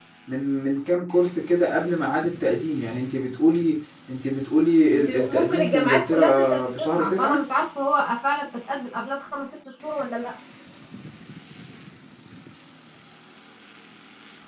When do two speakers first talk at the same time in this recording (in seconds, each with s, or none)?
4.9 s